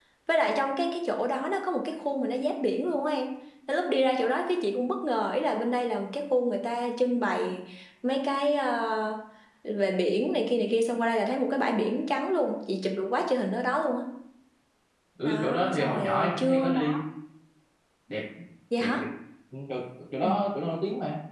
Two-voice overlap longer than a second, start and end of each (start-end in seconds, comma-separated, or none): 15.2-17.0